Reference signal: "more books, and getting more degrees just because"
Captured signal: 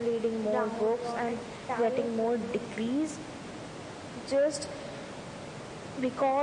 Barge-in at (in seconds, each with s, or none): 0.5 s